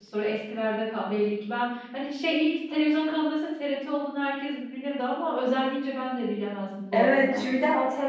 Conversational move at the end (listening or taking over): taking over